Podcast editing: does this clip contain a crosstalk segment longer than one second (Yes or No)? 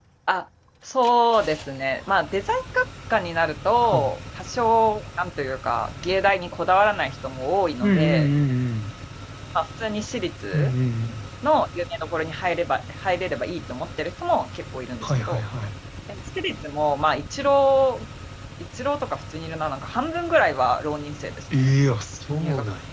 No